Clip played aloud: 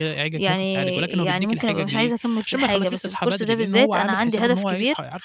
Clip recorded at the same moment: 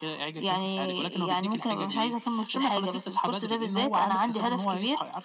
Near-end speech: none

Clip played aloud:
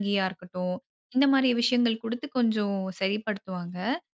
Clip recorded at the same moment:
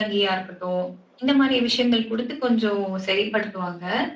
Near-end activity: none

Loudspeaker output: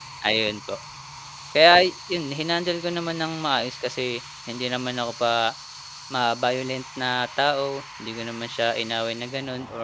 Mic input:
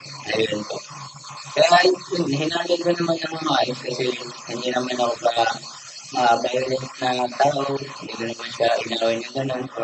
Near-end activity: none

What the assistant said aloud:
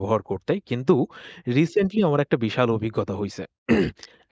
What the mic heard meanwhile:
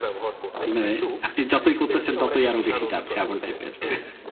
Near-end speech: present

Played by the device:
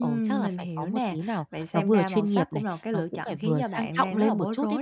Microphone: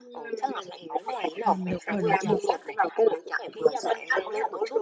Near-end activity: present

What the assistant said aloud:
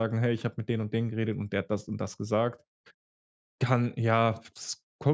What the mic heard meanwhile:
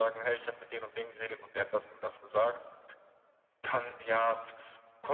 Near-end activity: none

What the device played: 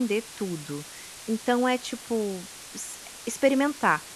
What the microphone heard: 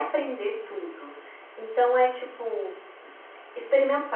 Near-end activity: none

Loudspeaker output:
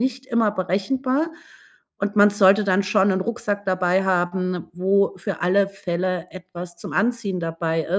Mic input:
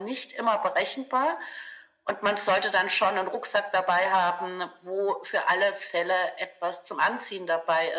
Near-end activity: none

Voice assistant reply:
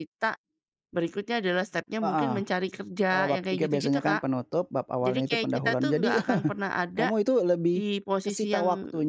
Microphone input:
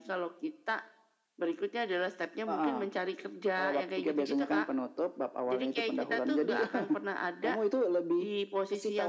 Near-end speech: none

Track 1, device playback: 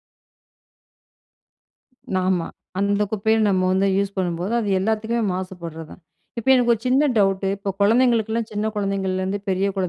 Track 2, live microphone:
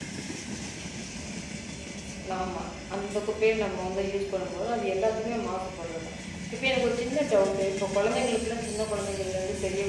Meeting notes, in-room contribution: none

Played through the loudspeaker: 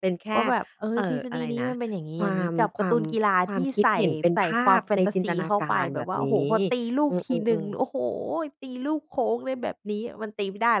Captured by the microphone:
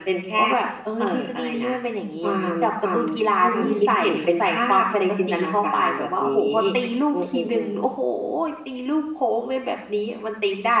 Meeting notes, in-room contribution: present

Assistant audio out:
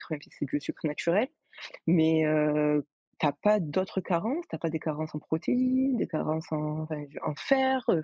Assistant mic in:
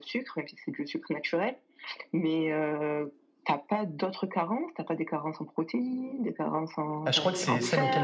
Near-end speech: present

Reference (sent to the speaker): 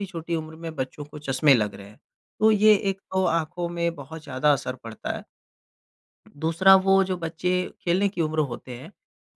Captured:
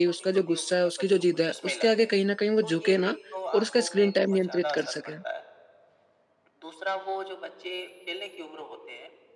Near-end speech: present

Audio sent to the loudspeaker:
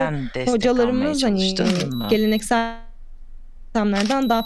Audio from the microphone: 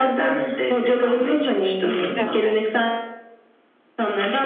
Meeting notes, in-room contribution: present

